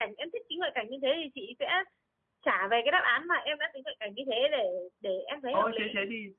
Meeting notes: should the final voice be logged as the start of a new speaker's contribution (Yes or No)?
Yes